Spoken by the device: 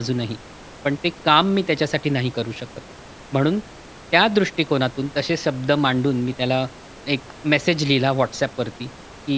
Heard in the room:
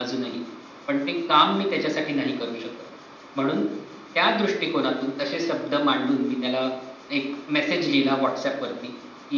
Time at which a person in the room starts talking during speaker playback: none

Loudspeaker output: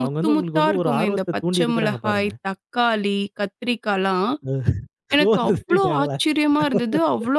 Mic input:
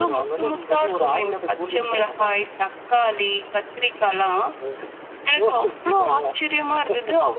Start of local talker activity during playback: none

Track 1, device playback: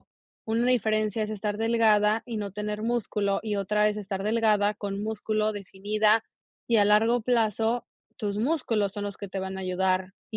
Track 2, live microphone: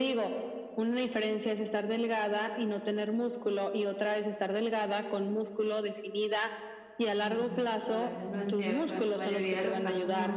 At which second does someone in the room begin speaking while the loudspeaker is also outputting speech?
7.0 s

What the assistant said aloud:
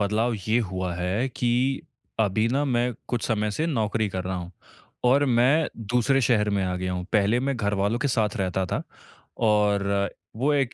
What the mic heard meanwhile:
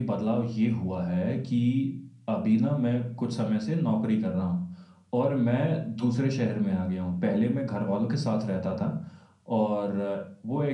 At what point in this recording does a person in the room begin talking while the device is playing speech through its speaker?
none

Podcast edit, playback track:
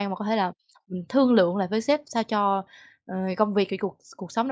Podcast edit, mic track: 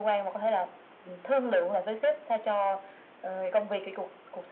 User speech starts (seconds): none

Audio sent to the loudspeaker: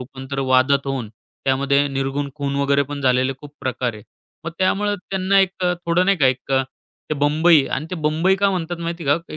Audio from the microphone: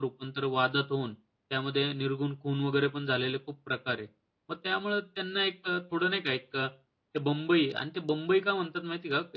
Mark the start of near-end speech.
none

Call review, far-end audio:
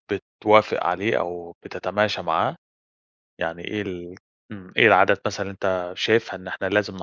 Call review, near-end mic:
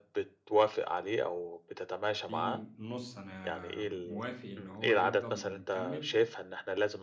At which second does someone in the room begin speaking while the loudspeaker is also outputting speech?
2.3 s

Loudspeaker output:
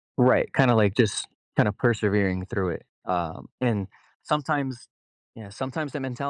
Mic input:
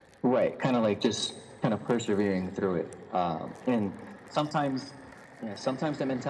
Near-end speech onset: none

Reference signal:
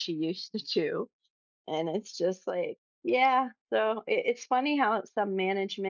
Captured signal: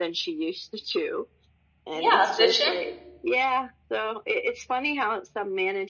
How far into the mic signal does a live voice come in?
1.9 s

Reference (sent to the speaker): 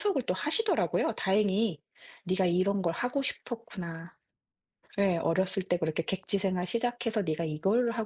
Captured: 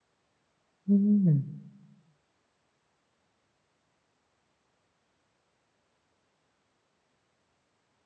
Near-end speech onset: 0.9 s

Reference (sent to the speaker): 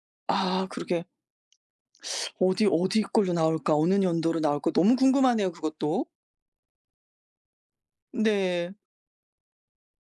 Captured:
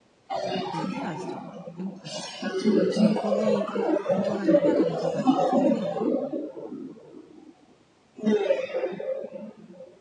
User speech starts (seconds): 0.6 s

